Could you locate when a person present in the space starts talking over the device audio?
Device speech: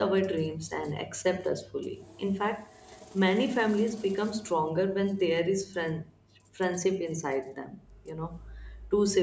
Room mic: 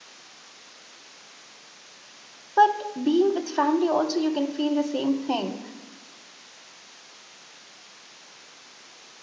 3 s

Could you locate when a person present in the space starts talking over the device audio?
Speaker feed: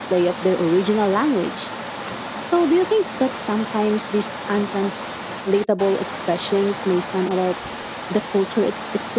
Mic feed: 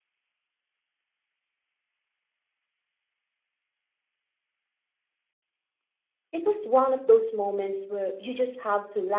6 s

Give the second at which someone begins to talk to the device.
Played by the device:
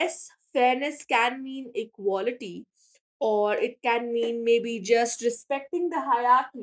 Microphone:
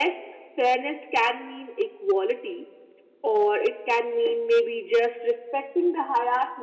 none

